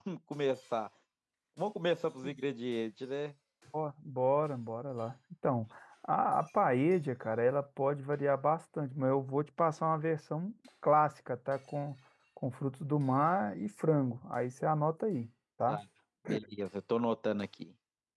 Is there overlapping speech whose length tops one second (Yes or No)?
No